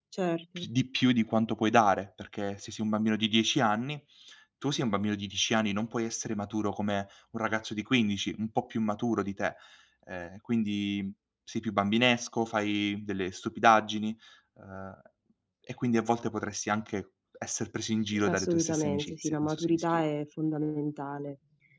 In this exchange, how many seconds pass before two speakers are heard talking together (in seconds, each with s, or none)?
18.1 s